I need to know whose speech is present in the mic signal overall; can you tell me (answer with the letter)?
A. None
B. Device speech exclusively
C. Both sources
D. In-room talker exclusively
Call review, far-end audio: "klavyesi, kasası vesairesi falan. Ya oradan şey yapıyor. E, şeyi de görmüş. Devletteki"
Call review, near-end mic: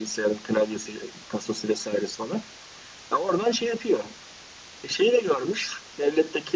B